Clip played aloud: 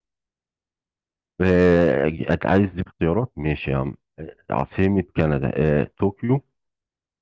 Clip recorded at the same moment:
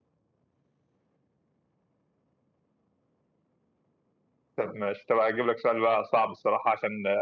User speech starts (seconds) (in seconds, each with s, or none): 4.6 s